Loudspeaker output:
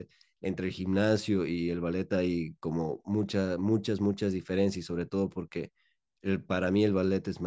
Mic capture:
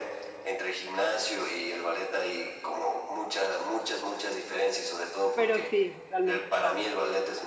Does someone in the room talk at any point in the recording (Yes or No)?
Yes